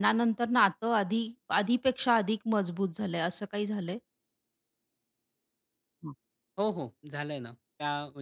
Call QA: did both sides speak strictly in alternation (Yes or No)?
Yes